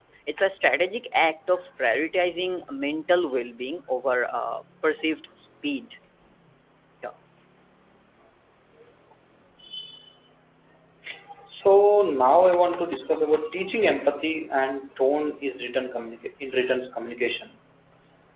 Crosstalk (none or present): none